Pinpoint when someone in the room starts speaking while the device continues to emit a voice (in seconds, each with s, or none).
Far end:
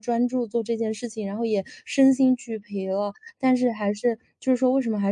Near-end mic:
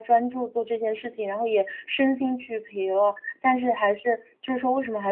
none